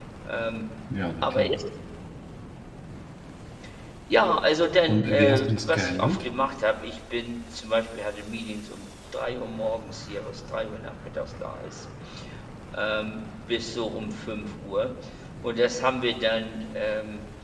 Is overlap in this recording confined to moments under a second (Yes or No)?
No